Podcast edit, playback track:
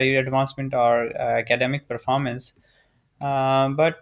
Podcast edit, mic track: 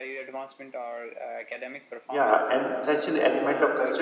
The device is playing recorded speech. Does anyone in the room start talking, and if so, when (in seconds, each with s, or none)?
2.1 s